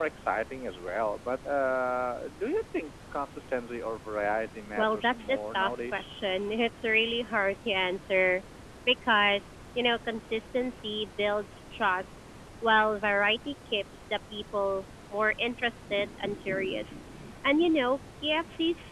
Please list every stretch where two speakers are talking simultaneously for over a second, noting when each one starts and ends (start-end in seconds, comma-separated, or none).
4.8-6.1